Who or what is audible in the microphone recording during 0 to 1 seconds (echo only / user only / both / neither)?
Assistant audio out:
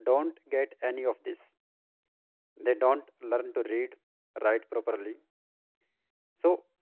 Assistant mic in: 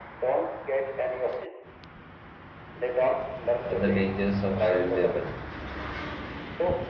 echo only